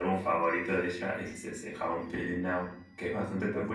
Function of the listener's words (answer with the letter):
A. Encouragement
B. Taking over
A